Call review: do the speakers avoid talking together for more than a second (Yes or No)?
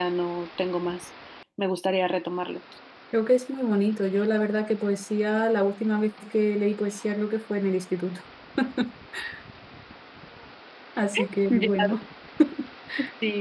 Yes